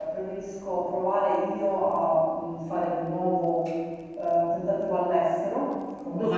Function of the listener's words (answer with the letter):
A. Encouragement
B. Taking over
A